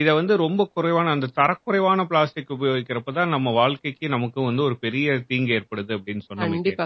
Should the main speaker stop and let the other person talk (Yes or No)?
Yes